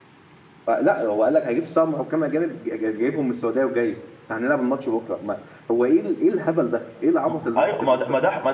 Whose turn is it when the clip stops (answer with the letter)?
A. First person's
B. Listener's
B